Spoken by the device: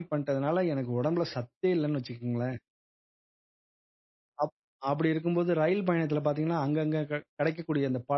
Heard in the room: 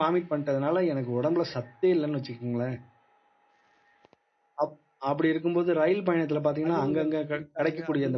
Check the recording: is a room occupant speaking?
Yes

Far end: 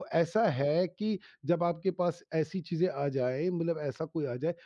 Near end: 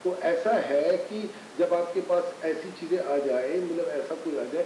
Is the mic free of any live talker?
Yes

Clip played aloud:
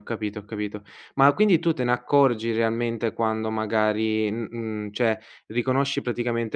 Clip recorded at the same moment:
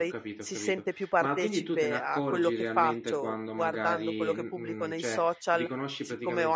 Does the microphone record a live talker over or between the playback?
Yes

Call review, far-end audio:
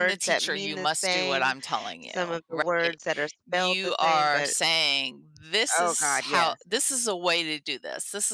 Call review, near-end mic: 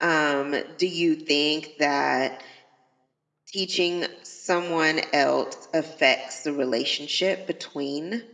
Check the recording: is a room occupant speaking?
Yes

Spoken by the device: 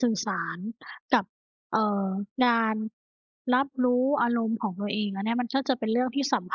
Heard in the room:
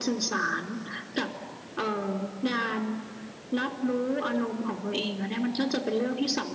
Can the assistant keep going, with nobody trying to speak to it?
Yes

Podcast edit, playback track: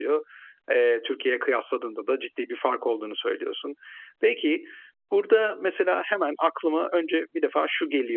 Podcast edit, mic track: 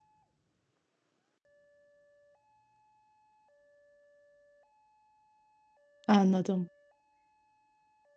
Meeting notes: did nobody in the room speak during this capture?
No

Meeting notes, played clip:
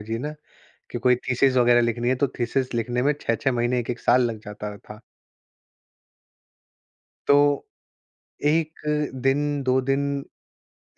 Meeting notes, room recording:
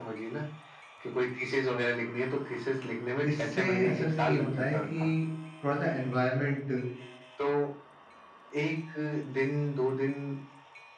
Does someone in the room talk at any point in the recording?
Yes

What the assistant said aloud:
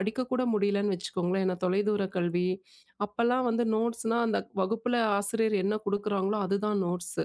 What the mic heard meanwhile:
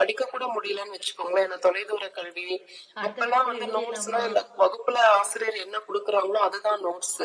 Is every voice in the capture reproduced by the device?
No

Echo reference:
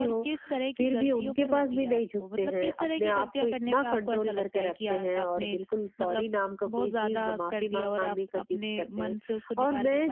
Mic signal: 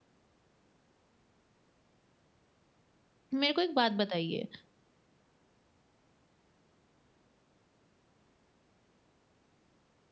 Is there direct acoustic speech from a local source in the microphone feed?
Yes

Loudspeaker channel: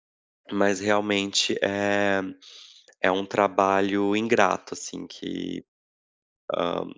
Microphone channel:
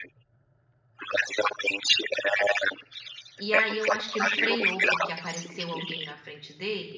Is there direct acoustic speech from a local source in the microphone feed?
Yes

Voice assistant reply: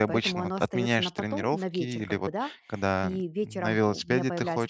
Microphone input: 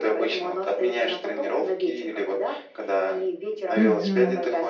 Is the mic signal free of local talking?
No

